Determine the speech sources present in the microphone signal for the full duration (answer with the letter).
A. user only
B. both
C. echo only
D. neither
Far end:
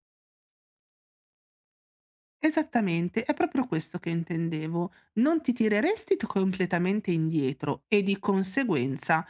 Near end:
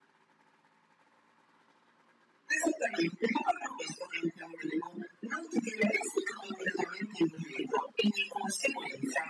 C